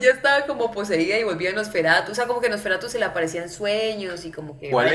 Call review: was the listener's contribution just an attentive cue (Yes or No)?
No